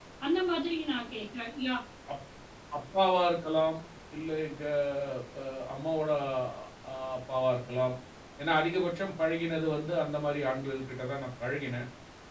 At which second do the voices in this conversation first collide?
none

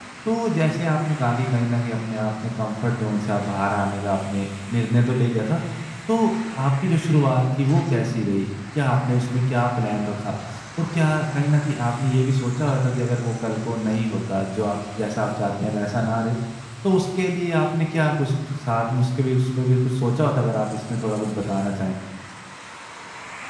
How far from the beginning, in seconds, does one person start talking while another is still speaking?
none

